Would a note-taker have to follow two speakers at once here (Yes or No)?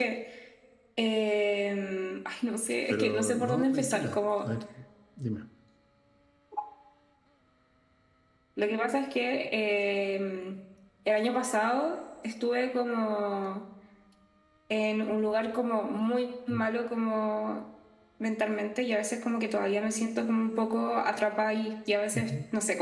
Yes